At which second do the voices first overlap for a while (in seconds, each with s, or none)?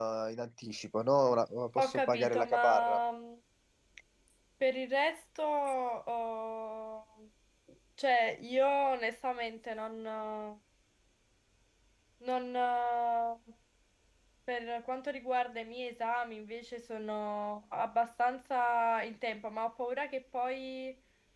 1.8 s